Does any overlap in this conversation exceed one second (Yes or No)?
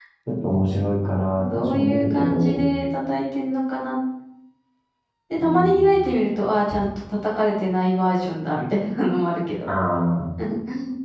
Yes